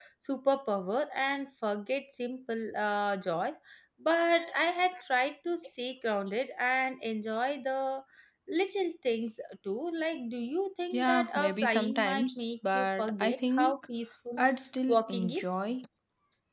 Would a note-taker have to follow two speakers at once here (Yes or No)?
Yes